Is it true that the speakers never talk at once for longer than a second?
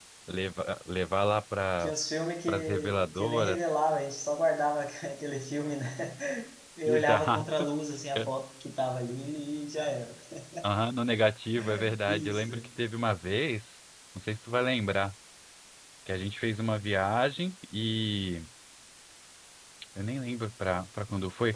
No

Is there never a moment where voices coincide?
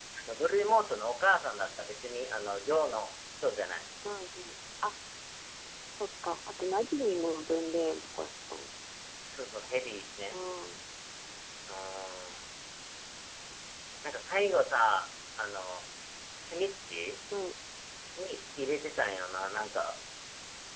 Yes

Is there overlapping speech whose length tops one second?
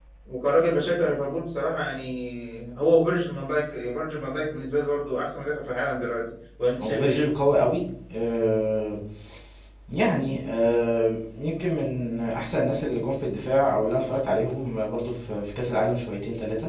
No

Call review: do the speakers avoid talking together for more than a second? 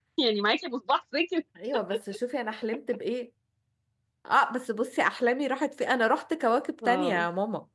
Yes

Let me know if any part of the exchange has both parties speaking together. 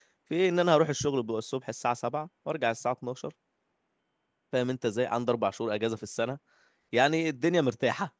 No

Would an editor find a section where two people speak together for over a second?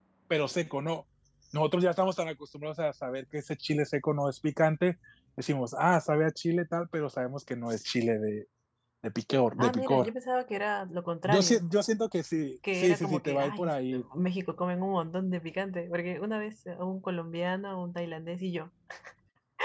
Yes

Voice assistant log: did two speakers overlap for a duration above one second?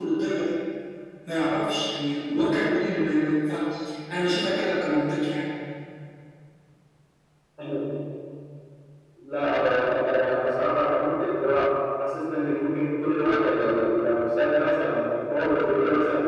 No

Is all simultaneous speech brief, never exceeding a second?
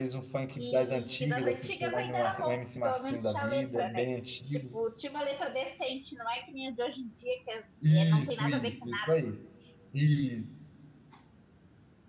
No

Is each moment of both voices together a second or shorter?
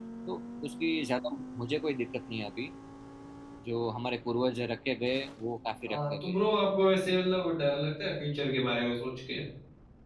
Yes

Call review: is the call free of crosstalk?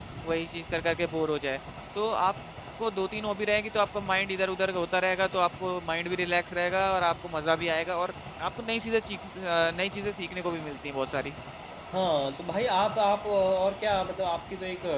Yes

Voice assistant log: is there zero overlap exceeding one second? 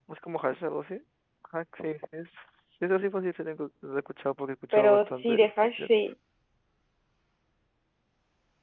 No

